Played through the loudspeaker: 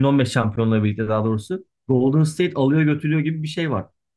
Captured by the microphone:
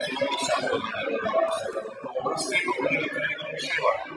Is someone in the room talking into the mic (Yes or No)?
No